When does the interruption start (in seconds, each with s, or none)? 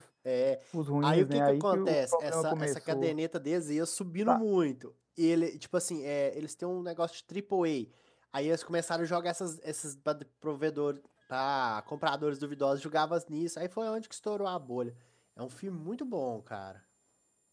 1.0 s